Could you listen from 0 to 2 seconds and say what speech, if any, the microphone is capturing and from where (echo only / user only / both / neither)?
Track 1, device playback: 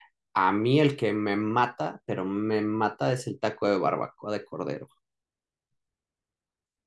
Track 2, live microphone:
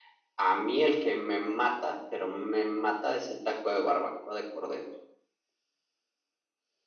echo only